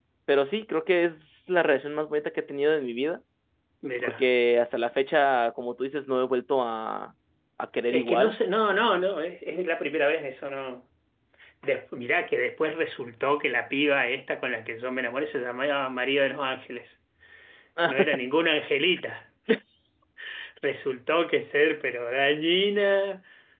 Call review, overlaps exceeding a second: none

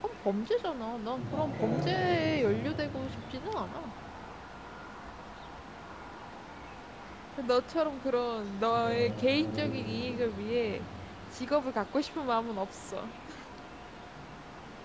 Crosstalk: present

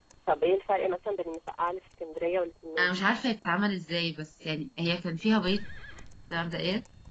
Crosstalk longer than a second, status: none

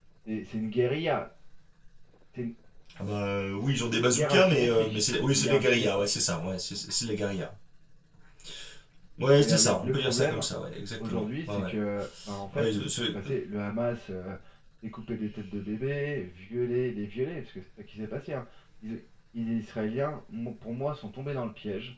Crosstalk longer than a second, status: present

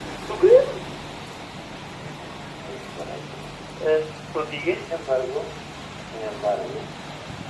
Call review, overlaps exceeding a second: none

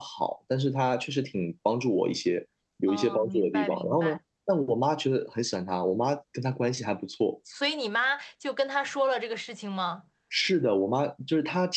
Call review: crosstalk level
present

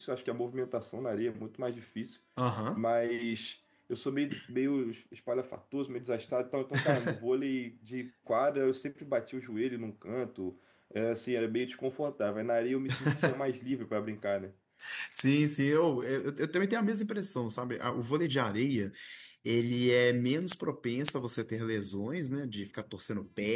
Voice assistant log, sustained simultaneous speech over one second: none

